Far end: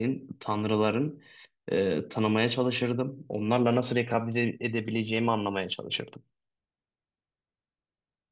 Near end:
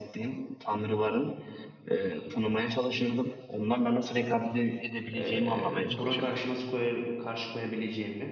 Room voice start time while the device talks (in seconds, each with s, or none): 5.2 s